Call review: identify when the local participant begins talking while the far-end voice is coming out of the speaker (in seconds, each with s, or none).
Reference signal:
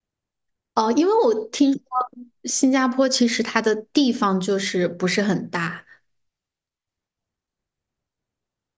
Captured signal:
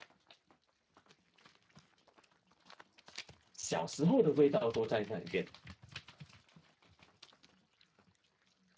3.5 s